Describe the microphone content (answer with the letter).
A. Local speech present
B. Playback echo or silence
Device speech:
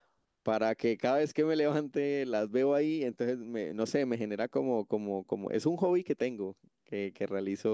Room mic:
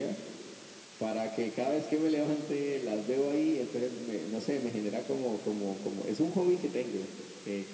B